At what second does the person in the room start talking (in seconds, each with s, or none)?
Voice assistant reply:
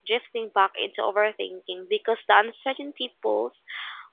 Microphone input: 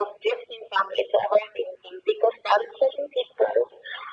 none